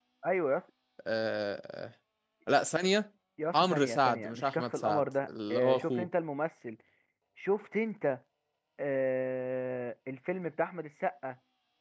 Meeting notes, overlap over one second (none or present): present